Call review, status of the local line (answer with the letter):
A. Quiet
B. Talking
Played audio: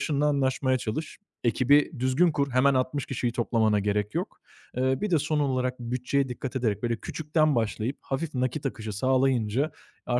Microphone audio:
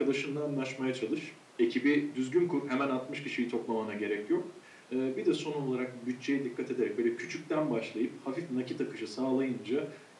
A